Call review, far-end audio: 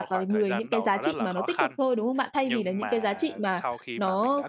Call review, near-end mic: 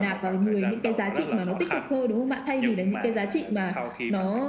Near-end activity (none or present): none